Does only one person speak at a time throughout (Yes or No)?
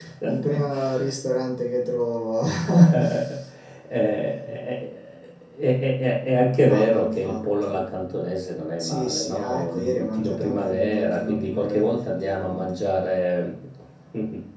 No